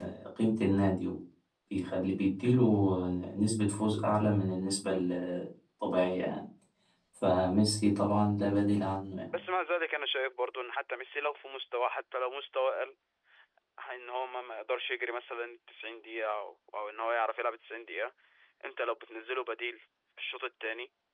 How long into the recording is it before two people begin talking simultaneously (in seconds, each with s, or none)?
none